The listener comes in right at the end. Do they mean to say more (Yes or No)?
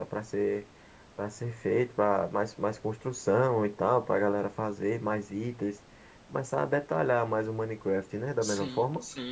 Yes